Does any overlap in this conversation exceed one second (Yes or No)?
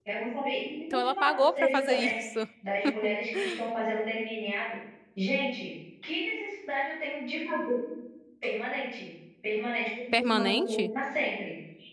Yes